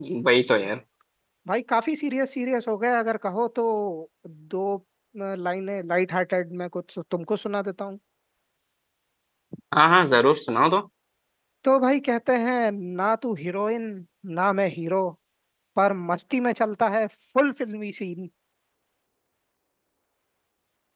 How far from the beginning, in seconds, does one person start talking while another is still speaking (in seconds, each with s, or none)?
none